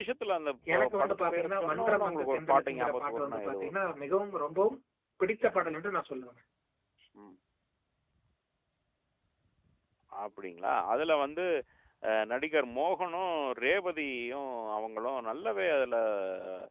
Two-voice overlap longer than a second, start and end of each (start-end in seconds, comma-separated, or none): 0.7-3.7